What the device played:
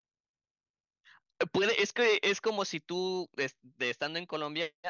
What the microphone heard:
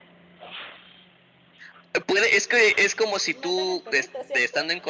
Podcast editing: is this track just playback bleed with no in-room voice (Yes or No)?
No